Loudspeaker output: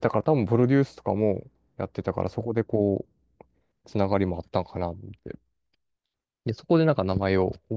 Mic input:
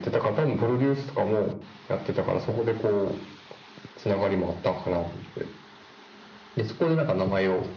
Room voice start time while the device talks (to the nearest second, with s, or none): none